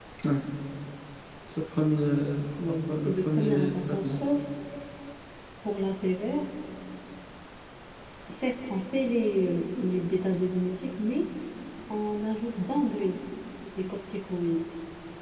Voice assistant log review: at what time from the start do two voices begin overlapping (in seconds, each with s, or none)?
2.6 s